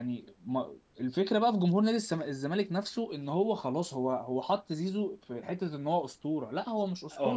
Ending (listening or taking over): taking over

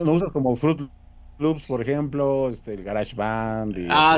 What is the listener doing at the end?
taking over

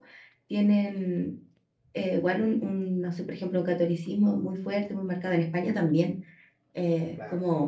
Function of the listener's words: listening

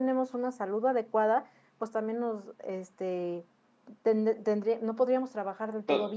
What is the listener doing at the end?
taking over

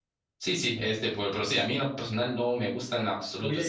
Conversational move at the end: taking over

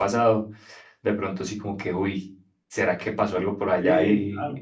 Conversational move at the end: taking over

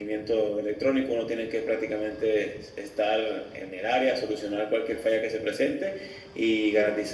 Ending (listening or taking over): listening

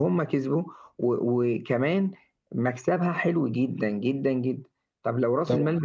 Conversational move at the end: listening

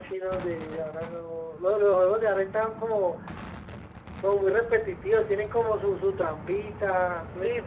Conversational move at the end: taking over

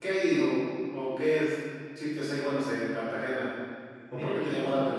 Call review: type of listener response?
taking over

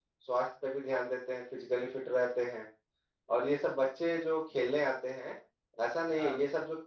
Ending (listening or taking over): listening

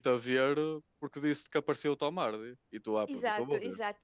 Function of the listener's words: taking over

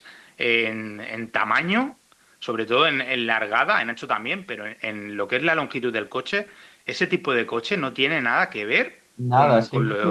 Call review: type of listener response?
taking over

